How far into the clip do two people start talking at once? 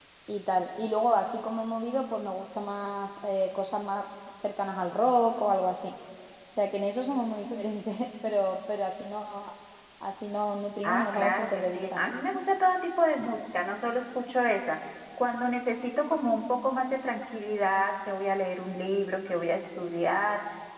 11 s

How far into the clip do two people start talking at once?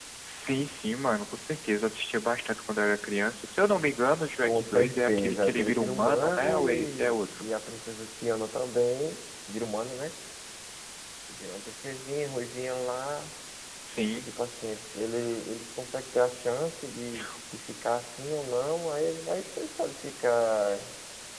4 s

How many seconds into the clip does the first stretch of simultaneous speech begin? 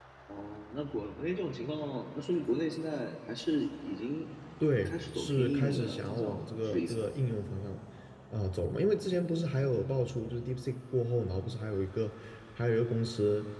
5 s

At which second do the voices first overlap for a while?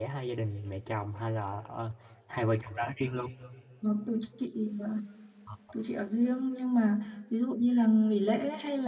none

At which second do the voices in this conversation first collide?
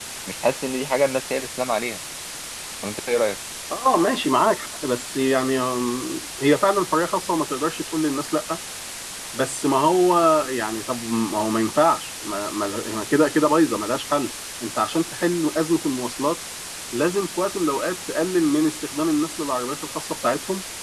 none

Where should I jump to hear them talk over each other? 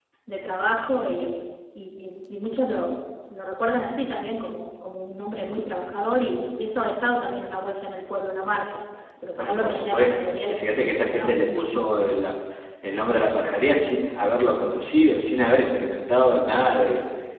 9 s

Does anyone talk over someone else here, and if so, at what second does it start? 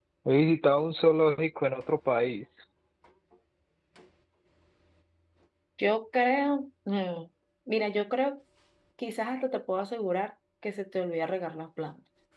none

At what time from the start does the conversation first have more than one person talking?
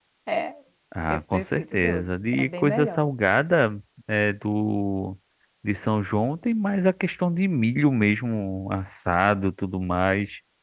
1 s

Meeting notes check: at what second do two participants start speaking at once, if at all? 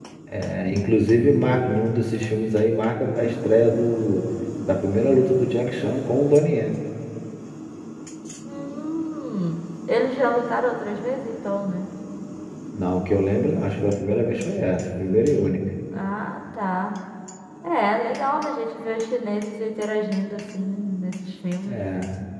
none

